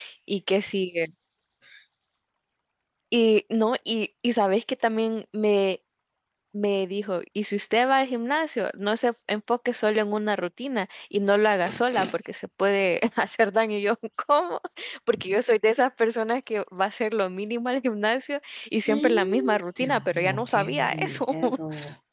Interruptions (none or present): present